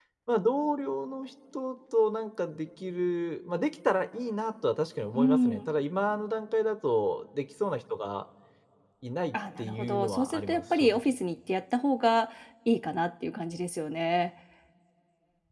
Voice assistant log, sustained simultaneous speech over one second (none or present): present